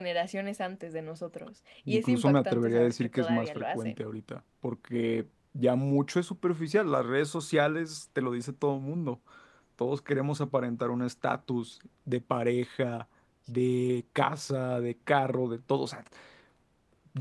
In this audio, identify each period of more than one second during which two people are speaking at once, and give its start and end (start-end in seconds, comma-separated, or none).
1.9-4.0